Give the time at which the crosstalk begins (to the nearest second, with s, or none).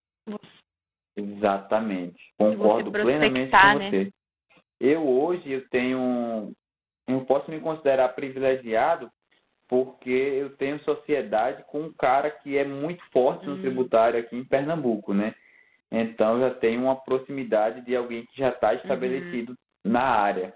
3 s